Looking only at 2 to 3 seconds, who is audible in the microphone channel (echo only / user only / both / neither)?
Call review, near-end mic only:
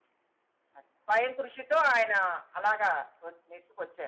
echo only